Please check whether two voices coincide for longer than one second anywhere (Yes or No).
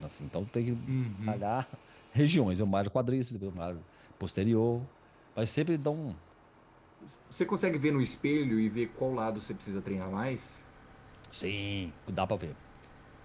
No